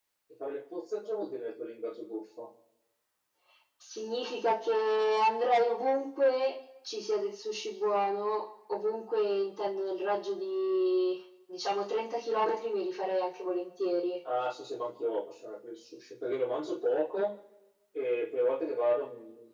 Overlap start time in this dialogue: none

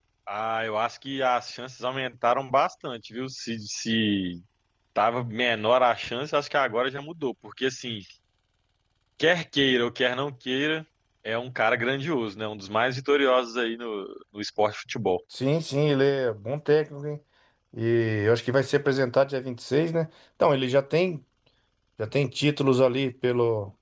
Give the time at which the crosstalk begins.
none

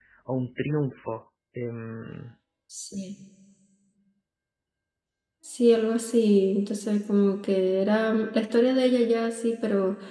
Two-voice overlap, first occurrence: none

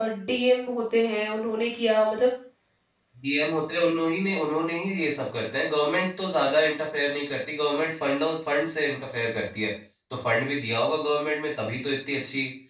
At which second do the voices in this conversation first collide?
none

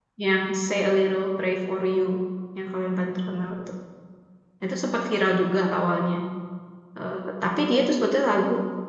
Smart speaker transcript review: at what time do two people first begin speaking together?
none

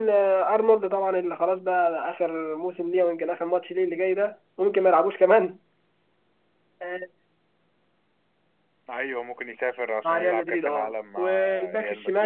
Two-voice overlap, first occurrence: 10.0 s

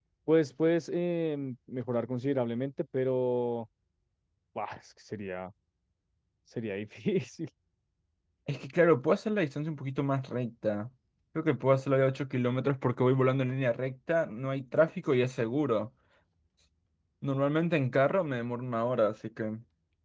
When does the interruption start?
none

